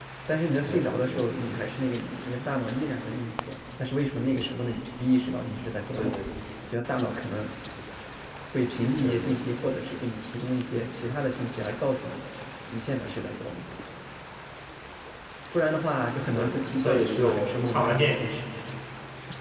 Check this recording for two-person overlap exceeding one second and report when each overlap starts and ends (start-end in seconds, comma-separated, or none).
16.3-18.4